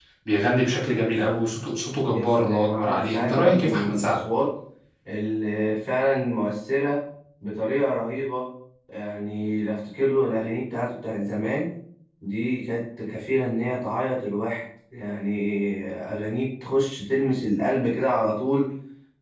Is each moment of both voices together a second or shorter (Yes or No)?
No